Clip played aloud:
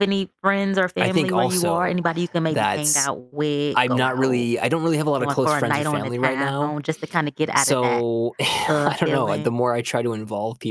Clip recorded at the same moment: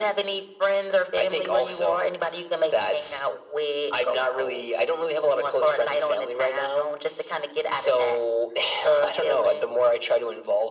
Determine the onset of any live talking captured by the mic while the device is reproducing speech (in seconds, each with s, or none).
none